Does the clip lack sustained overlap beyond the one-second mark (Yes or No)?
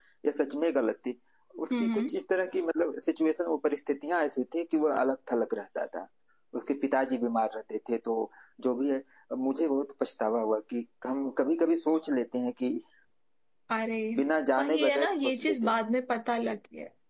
No